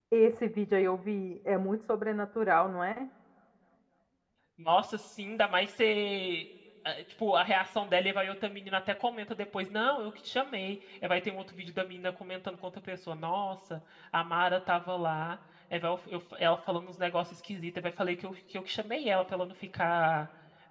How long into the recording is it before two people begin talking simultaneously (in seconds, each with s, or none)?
none